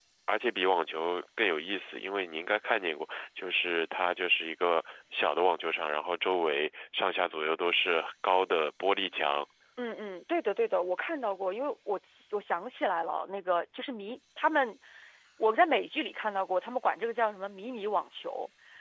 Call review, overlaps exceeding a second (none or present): none